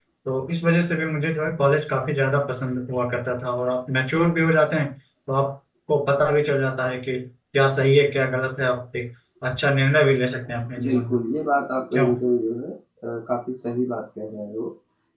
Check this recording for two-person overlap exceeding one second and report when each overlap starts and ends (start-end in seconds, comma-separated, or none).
none